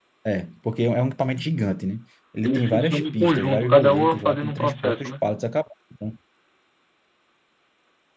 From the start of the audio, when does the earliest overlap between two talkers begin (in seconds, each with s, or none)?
2.4 s